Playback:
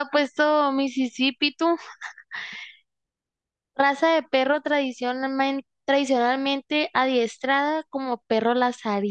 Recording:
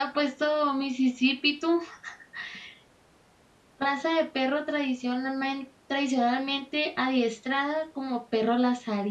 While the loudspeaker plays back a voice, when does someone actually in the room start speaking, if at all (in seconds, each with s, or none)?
none